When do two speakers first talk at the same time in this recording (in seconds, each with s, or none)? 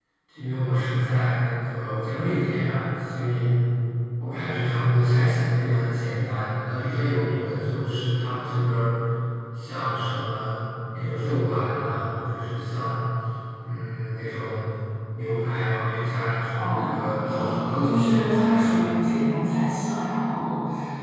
16.6 s